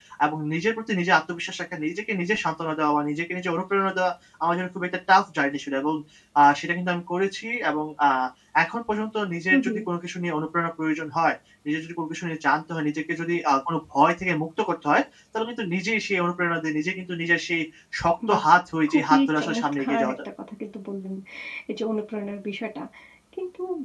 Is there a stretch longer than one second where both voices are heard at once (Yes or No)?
Yes